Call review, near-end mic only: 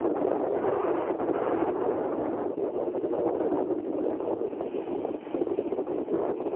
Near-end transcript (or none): none